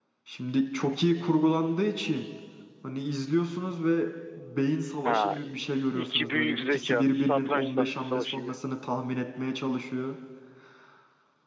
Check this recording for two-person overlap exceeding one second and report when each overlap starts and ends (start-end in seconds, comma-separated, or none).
5.0-8.5